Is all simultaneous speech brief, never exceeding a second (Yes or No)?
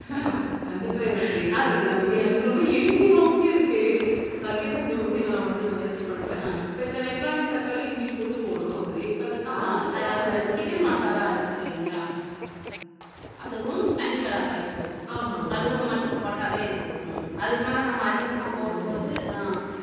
No